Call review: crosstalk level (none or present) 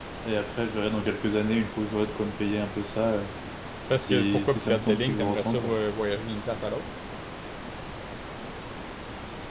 present